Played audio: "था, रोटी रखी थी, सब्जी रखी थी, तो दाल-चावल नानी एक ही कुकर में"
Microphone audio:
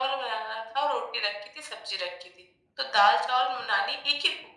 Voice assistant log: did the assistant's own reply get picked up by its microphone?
Yes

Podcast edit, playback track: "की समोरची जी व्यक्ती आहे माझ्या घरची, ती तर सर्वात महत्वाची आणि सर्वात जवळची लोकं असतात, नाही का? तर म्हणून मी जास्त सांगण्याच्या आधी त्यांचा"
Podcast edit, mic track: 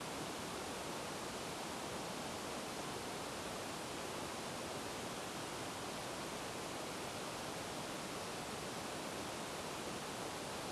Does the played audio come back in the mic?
No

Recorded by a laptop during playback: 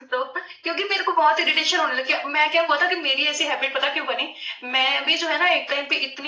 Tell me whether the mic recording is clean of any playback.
No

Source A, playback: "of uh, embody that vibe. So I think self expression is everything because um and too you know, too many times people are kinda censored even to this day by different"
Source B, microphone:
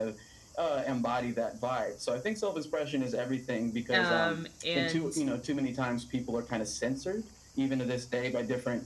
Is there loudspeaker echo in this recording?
Yes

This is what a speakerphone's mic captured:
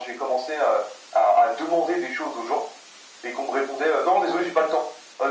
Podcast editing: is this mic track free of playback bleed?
No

